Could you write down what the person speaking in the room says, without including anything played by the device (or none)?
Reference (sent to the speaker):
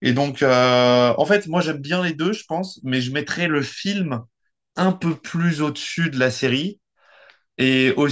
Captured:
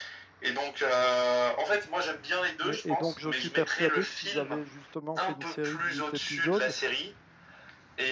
Et, et donc, je suis persuadé que s'ils avaient justement fait une série de huit épisodes,